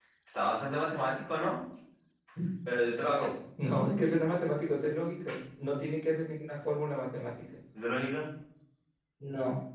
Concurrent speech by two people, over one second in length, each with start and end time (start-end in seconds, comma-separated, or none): none